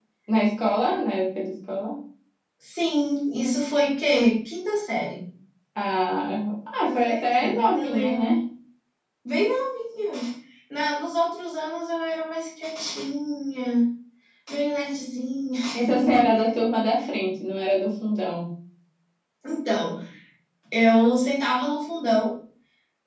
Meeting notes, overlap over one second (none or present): present